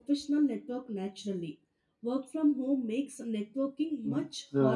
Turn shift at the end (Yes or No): Yes